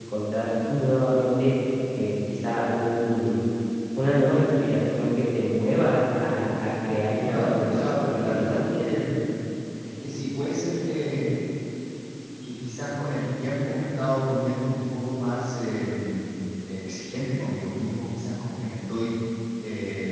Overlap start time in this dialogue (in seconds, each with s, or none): 7.0 s